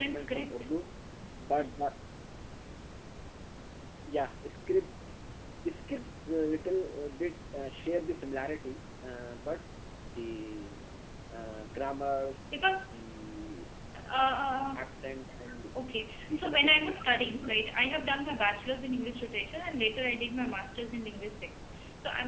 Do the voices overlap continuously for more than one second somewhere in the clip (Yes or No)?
Yes